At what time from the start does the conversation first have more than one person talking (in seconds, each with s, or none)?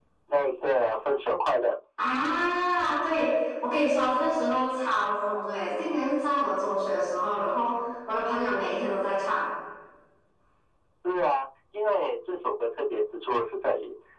none